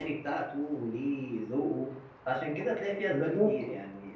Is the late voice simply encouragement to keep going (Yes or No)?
Yes